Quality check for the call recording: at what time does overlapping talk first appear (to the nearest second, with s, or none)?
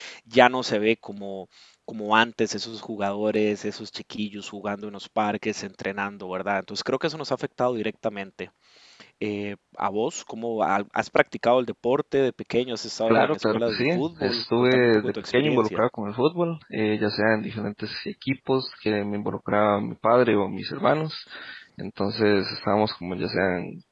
13 s